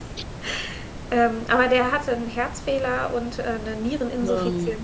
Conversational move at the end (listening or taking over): listening